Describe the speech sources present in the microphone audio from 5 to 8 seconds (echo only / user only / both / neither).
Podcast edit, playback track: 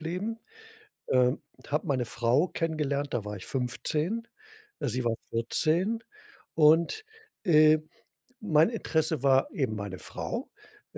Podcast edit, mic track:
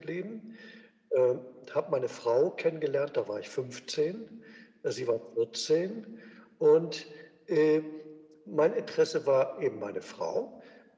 echo only